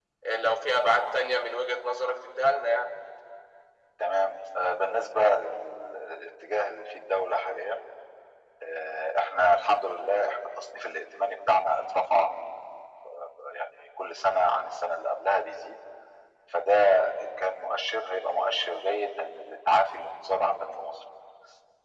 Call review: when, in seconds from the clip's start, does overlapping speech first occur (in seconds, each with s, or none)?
none